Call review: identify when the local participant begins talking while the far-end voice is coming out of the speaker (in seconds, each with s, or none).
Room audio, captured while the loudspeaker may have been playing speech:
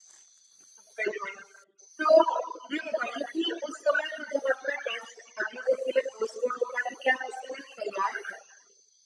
none